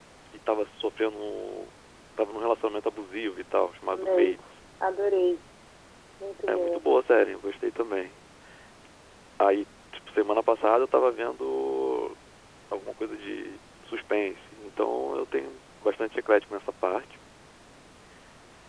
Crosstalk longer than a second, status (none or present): none